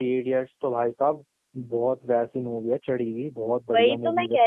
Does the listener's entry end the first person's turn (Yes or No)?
Yes